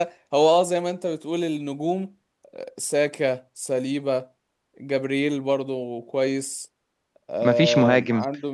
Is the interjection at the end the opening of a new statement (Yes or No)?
No